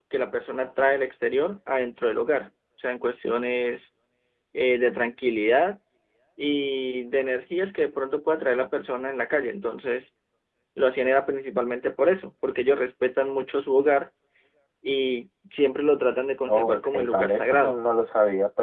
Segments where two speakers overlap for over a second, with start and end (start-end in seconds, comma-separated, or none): 16.5-17.8